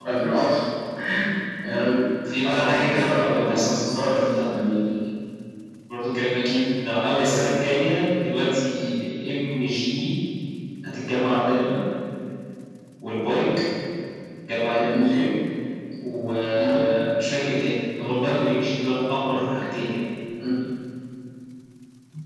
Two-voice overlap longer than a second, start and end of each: 2.4-4.5

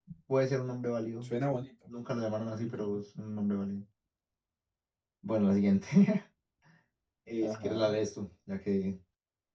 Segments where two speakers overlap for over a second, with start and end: none

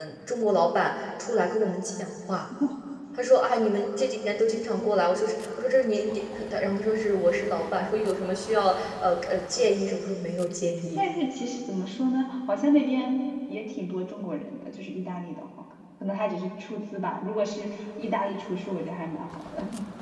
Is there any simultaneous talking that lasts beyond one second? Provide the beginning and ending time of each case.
none

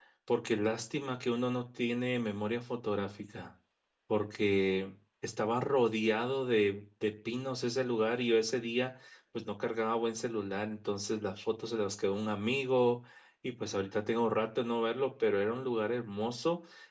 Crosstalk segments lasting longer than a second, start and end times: none

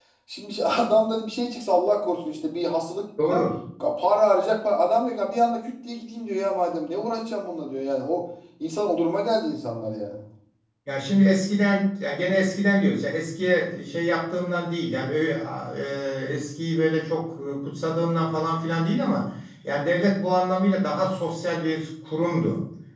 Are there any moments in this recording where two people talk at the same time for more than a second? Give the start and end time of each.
none

